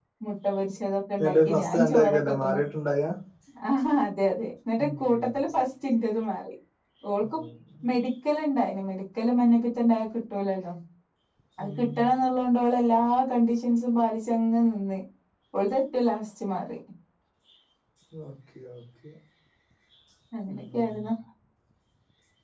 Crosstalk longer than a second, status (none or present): present